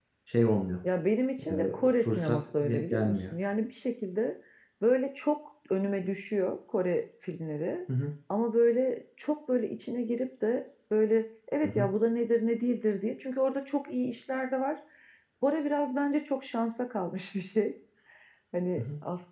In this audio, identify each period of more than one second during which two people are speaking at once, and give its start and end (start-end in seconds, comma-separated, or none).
1.4-3.3